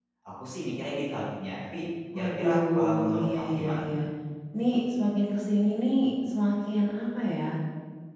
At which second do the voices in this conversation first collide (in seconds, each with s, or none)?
2.1 s